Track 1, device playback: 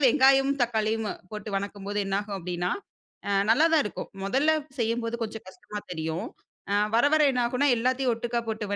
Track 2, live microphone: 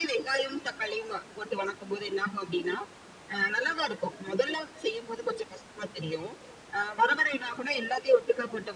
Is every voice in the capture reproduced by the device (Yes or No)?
Yes